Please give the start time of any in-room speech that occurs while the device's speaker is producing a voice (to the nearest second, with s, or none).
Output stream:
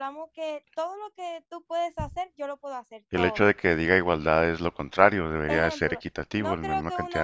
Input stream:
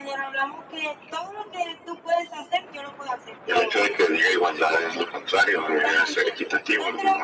none